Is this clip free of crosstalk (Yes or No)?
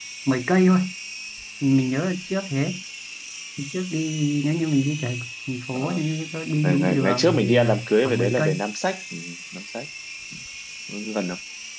No